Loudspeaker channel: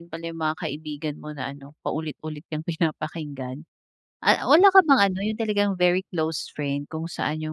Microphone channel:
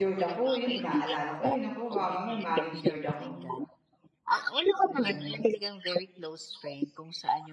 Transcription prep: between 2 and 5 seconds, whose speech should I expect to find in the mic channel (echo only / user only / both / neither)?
both